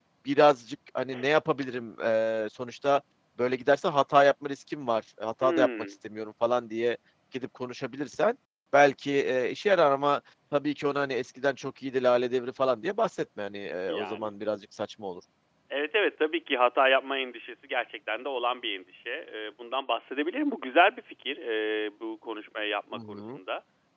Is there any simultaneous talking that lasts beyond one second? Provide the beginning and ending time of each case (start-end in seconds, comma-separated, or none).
none